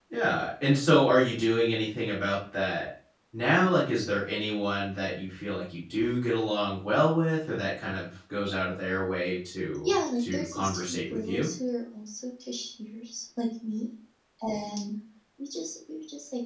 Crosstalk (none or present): present